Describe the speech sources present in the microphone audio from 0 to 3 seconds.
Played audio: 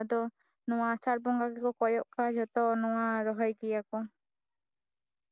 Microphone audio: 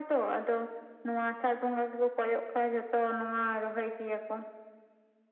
echo only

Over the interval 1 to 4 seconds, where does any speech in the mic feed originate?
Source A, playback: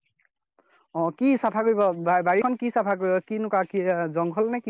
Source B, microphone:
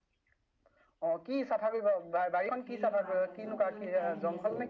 both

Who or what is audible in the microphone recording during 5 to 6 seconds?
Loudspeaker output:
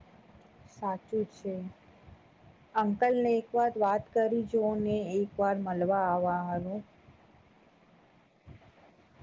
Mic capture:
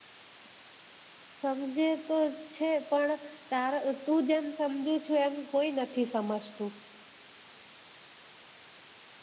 user only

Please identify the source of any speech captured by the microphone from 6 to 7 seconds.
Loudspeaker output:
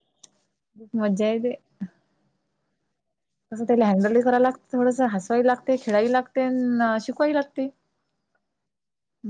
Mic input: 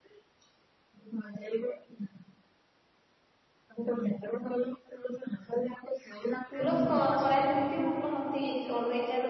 both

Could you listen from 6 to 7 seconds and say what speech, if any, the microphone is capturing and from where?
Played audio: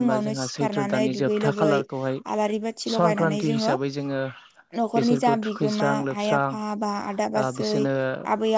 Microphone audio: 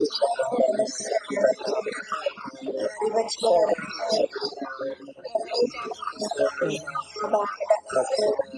both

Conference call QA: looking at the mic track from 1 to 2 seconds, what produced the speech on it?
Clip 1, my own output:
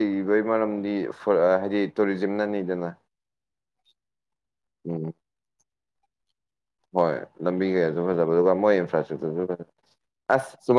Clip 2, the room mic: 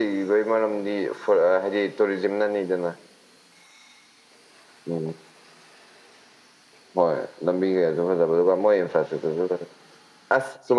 echo only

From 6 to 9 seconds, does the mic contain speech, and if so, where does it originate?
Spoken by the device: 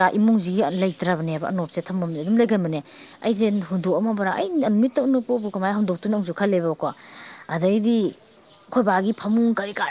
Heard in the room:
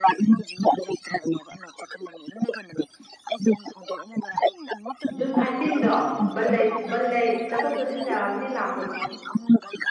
both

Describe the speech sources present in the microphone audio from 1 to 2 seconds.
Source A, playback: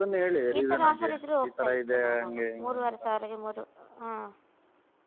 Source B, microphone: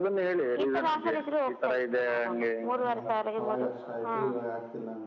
echo only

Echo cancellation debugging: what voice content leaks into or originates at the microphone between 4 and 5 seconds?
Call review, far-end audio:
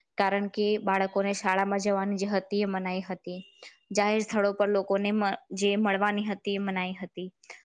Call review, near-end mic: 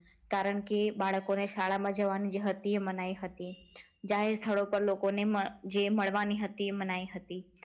echo only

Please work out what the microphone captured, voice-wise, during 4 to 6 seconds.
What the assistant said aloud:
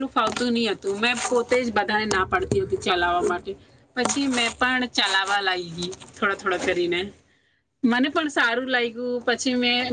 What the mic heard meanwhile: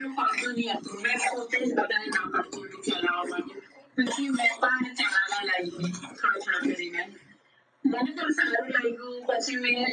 echo only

